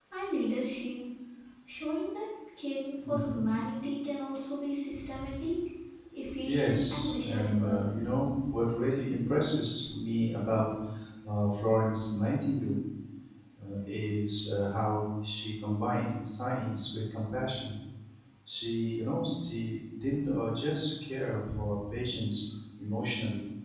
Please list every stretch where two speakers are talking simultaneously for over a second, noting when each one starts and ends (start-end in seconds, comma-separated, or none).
6.5-7.9